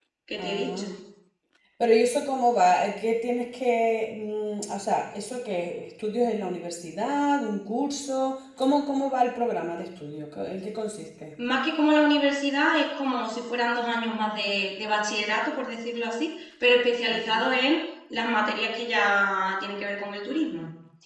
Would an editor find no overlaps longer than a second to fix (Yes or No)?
Yes